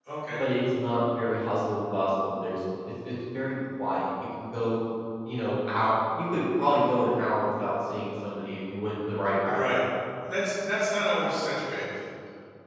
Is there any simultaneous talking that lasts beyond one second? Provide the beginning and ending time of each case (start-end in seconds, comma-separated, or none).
none